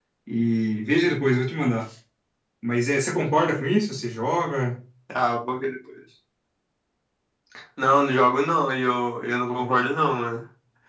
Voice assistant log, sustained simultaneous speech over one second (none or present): none